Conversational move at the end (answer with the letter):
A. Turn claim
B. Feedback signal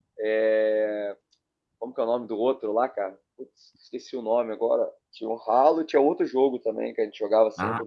A